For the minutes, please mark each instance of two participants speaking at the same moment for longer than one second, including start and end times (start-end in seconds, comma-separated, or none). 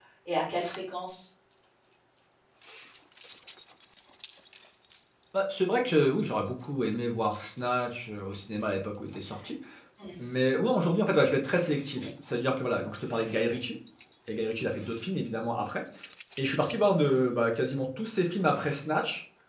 none